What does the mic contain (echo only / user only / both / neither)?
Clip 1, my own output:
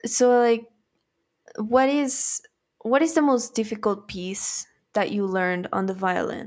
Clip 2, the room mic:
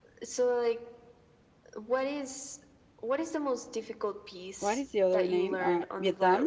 both